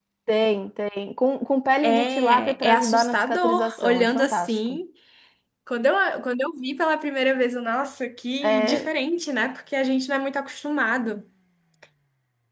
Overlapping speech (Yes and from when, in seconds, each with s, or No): Yes, from 1.8 s